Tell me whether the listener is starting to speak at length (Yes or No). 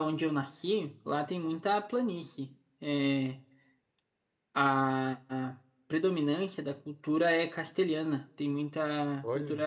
No